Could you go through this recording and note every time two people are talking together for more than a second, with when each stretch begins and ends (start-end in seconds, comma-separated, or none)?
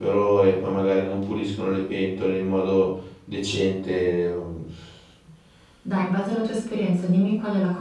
none